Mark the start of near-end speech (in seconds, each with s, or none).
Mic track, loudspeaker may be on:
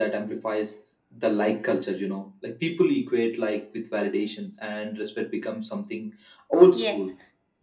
6.7 s